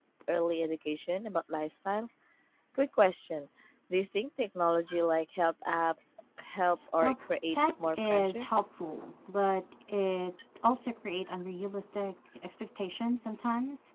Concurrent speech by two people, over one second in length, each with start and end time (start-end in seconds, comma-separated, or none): 7.0-8.4